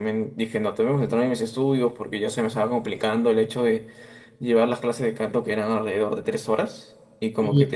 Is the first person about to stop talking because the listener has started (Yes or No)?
No